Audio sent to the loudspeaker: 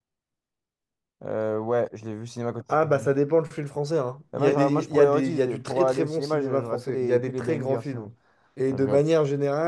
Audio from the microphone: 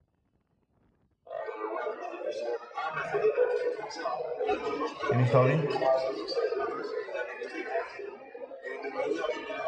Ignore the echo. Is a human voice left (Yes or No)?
Yes